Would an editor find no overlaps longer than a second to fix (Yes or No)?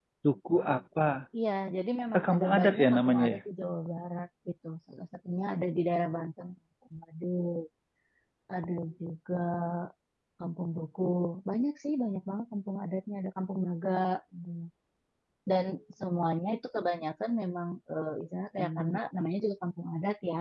No